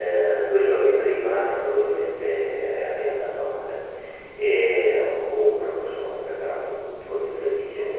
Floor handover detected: No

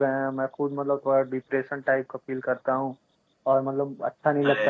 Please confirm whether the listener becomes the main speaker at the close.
No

